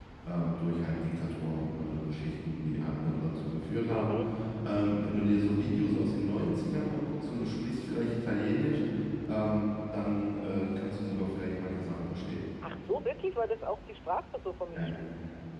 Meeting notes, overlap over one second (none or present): none